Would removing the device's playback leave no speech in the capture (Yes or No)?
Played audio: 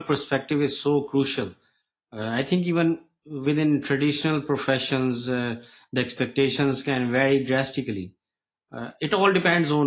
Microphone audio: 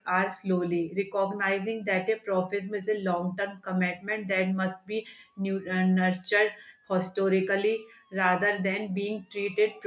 No